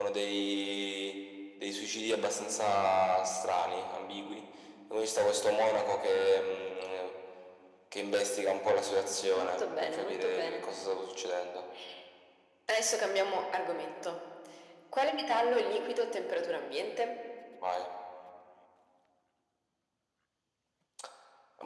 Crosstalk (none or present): present